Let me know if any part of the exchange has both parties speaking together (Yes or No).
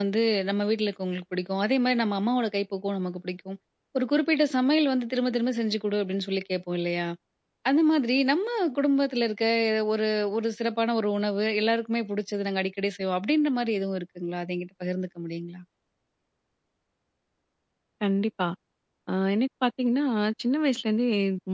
No